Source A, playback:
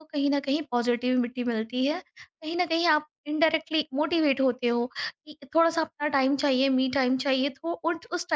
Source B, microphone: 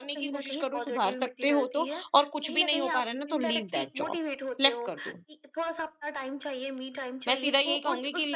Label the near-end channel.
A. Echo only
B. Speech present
B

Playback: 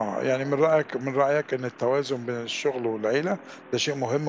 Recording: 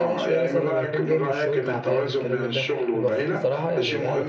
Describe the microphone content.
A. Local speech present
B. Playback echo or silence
A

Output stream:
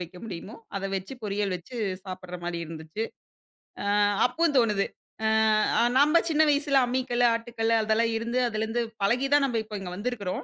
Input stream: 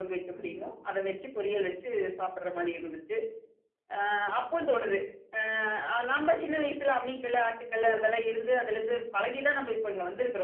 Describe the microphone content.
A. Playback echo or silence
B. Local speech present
A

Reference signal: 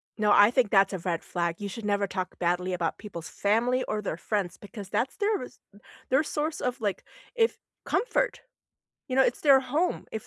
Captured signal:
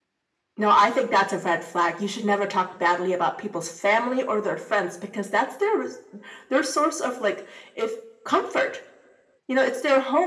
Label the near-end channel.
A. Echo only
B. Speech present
A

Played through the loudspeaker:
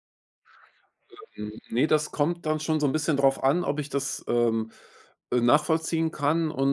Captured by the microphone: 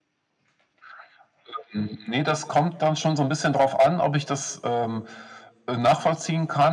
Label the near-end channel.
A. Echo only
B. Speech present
A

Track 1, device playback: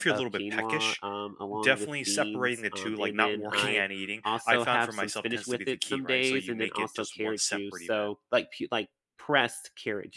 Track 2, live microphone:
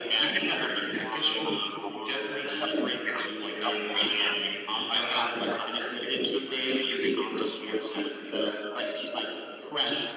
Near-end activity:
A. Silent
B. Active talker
A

